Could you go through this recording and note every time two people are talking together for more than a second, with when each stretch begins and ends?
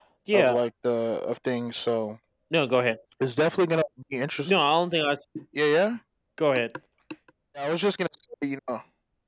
none

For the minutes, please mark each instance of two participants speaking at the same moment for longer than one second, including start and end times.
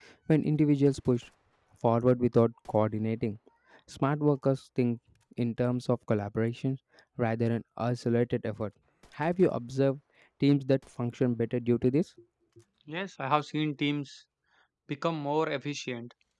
none

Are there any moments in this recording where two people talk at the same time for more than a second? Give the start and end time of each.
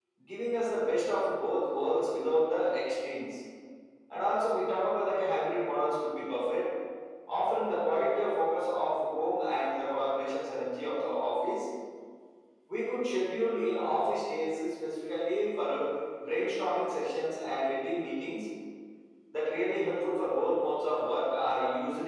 none

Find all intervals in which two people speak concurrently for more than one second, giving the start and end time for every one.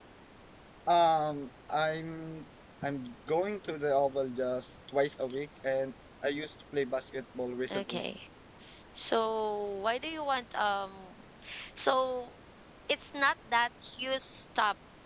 none

